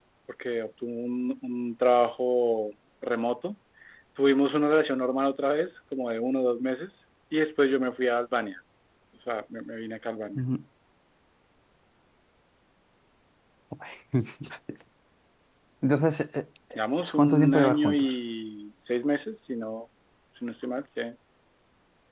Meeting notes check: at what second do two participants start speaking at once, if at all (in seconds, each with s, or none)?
16.8 s